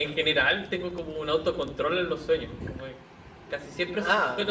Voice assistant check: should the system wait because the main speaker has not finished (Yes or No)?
Yes